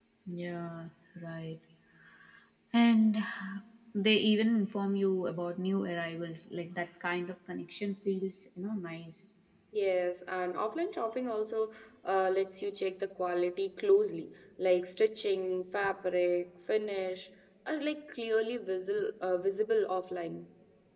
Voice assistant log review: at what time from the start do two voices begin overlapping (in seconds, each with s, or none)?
none